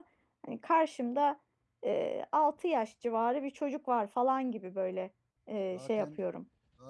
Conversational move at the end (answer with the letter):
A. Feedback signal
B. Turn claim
B